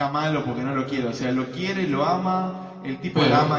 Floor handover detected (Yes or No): No